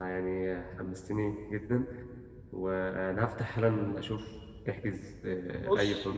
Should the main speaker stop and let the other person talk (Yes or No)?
Yes